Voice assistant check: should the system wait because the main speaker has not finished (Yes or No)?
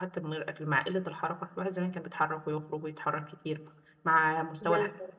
Yes